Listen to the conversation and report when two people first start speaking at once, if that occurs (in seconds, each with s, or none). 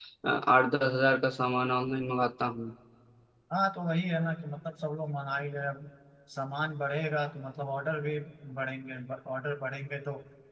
none